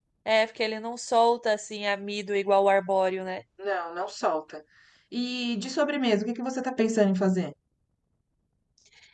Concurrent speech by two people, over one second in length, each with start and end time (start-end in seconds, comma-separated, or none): none